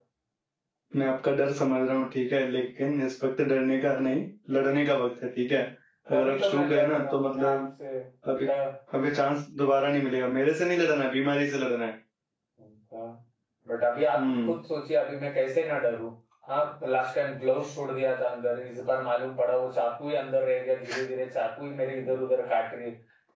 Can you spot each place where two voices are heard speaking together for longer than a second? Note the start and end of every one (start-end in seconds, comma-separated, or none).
6.1-7.7